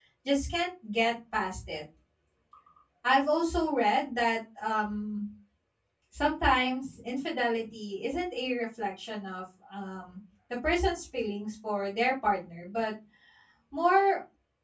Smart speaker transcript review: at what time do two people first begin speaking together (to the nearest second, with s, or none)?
none